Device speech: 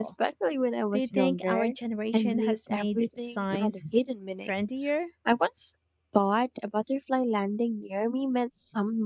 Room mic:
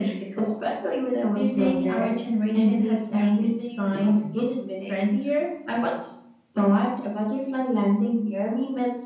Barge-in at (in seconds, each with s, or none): none